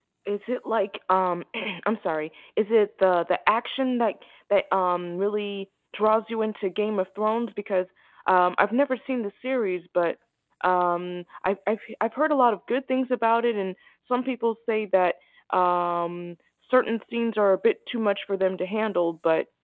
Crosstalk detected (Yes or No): No